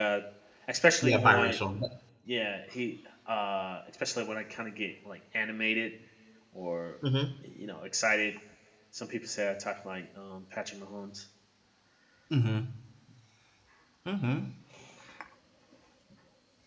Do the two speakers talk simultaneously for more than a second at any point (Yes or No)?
No